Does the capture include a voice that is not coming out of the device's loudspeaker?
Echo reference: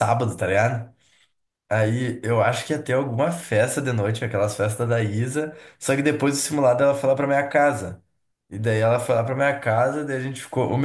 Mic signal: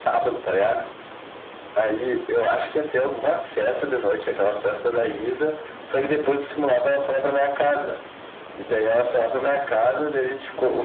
No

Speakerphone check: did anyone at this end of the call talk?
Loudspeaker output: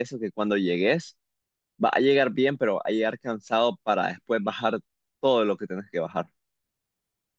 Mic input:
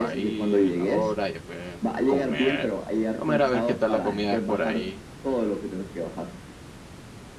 Yes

